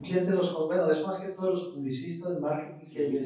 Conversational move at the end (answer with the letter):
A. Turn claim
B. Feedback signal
B